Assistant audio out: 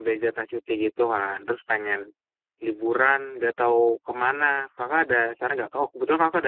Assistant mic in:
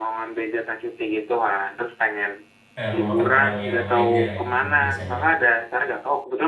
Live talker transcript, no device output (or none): eh, rumah makan Padang yang lainnya gitu biasanya